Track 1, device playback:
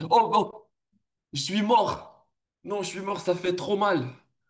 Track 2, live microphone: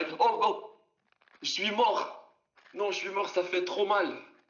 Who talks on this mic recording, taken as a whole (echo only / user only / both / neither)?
echo only